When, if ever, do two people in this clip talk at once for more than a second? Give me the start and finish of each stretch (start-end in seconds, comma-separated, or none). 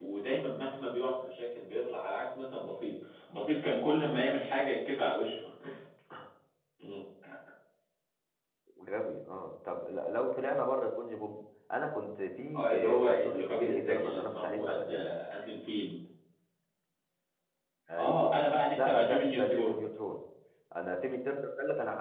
12.6-14.9, 18.0-19.8